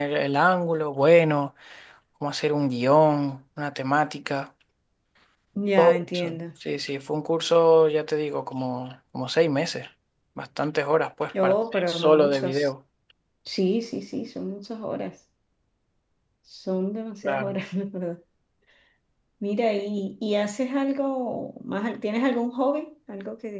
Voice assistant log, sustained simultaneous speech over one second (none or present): present